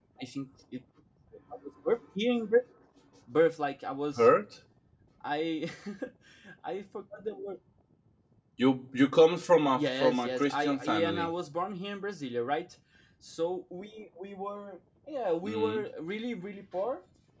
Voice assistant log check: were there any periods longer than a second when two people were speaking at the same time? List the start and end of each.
9.8-11.3

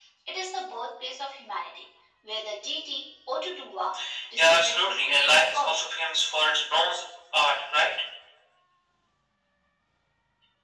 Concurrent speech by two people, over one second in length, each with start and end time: 4.4-5.8

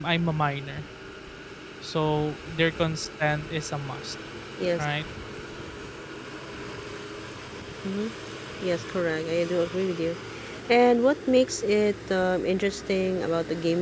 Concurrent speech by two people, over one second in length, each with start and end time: none

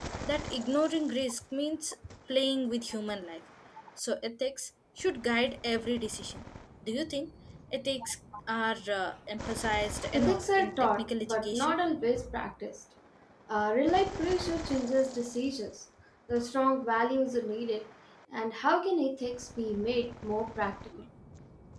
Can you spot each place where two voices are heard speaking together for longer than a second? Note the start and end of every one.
10.1-11.8

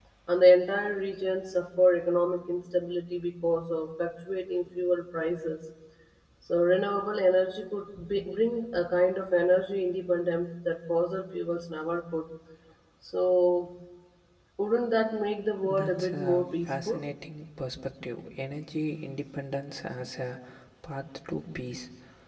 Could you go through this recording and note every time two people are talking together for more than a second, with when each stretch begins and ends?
15.6-17.0

